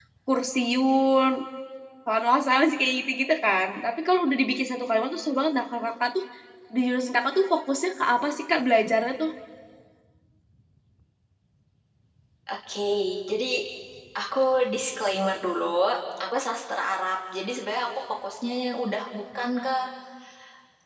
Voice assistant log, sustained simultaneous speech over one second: none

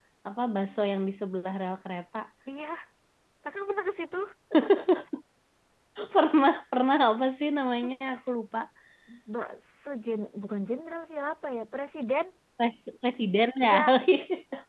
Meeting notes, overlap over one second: none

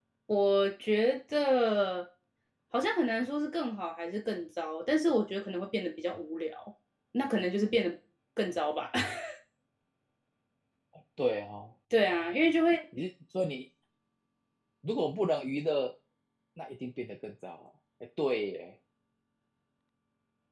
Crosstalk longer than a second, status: none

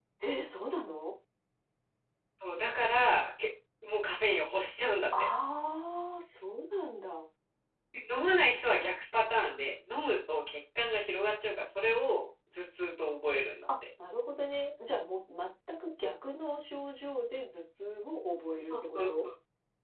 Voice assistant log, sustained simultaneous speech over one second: none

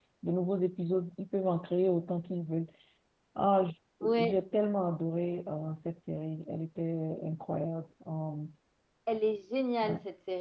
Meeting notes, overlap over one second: none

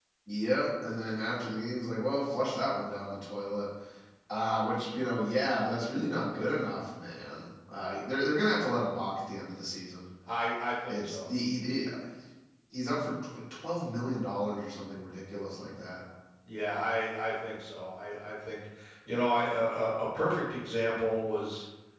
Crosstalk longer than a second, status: none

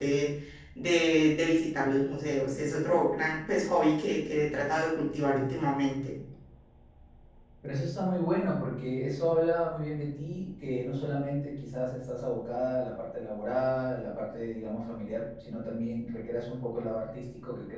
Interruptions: none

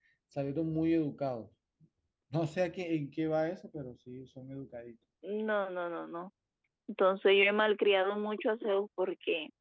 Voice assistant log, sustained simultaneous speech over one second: none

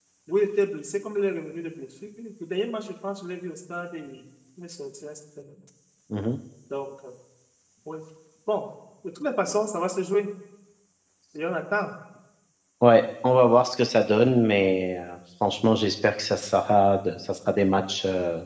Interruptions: none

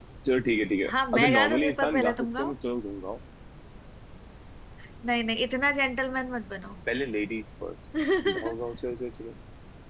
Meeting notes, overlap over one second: present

